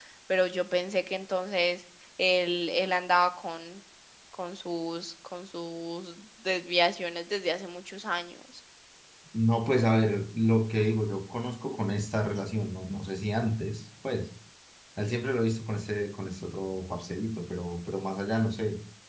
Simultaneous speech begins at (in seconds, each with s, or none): none